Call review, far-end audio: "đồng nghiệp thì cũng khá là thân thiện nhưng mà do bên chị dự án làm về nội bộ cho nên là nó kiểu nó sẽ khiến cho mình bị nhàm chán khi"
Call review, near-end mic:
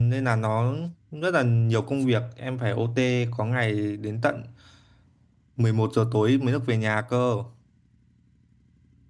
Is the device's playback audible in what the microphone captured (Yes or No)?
No